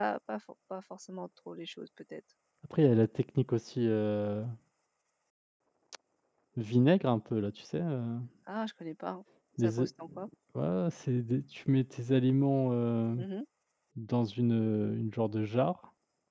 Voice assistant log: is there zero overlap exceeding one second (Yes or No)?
Yes